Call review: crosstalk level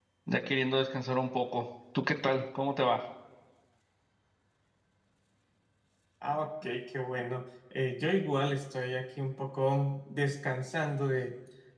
none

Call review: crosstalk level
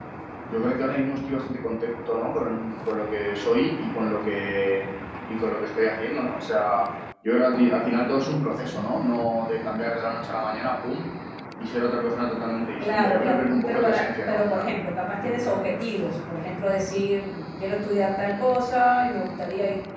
present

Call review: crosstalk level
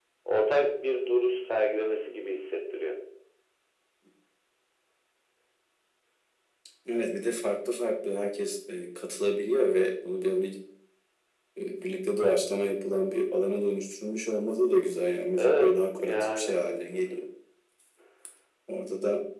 present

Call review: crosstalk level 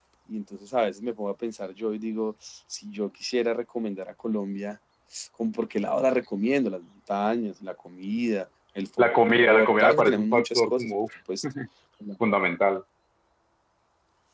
present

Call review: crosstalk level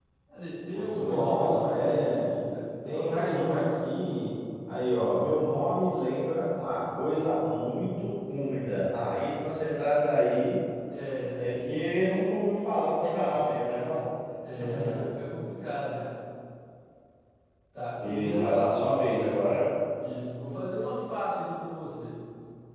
present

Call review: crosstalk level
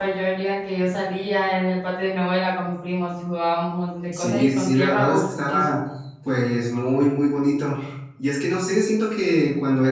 present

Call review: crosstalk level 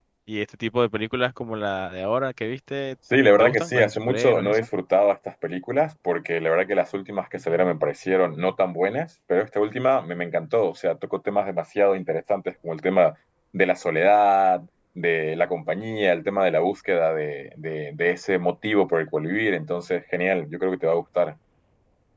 present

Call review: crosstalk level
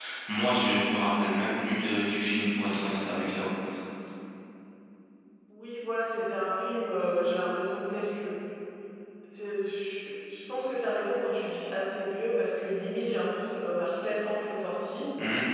none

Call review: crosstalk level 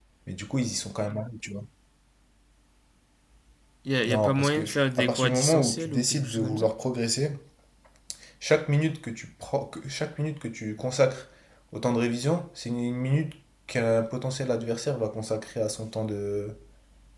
present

